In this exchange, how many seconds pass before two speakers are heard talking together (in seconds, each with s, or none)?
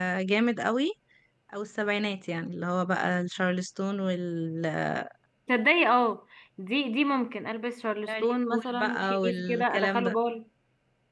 8.1 s